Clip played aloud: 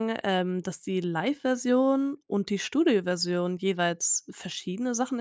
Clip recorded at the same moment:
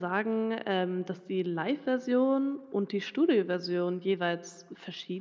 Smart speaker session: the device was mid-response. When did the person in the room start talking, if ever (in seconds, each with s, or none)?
none